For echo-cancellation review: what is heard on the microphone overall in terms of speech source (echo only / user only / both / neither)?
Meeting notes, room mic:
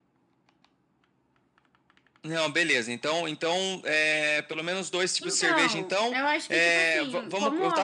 both